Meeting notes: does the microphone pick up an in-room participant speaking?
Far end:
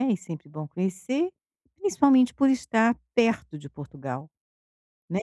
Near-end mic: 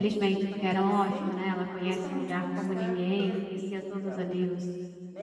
Yes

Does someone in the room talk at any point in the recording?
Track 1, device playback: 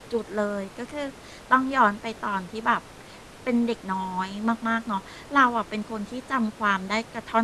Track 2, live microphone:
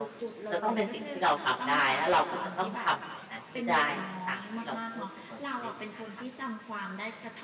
Yes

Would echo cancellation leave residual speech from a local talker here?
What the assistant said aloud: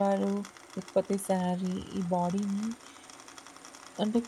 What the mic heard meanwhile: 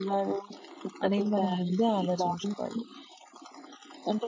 Yes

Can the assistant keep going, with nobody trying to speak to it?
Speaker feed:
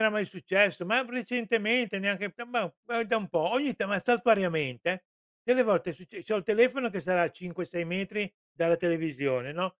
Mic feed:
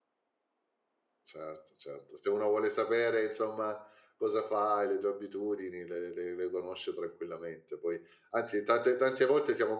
No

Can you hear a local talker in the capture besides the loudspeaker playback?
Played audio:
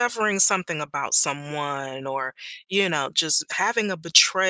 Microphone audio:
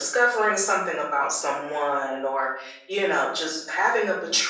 No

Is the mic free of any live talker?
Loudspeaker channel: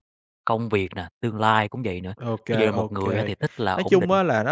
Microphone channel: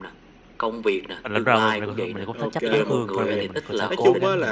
No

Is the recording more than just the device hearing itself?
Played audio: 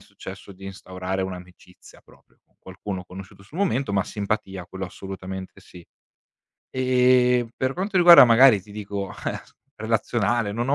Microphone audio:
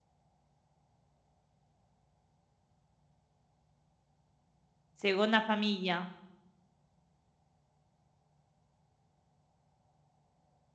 Yes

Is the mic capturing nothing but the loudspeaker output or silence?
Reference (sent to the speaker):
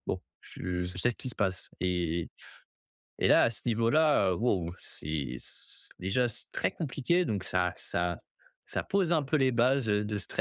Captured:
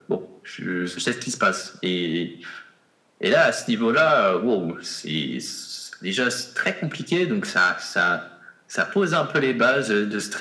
Yes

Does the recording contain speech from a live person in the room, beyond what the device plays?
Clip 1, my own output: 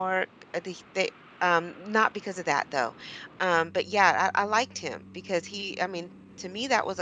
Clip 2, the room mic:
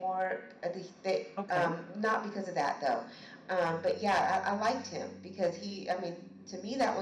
Yes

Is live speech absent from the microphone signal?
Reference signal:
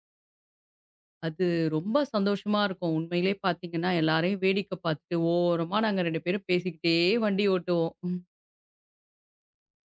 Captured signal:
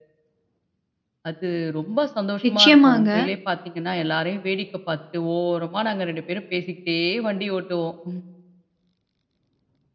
No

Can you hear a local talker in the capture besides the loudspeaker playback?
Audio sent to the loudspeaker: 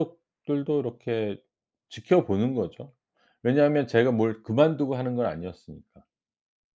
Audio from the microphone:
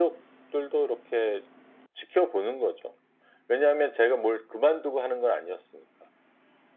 No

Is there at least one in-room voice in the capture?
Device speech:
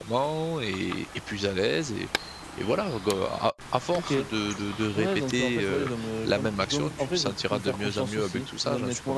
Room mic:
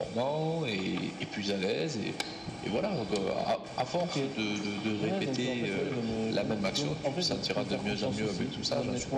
No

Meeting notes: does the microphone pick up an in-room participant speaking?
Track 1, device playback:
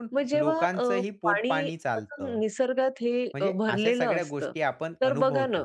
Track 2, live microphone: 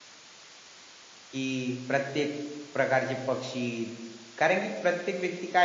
Yes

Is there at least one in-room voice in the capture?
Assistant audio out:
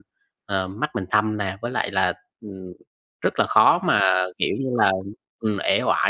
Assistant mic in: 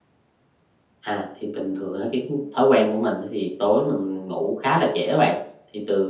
Yes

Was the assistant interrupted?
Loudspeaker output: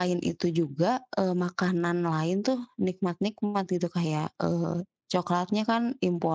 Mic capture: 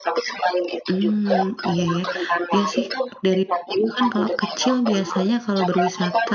Yes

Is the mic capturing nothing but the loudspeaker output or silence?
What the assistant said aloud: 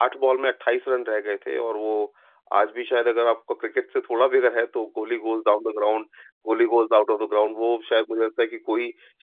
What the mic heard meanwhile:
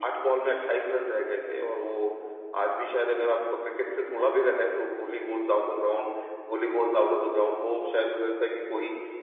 Yes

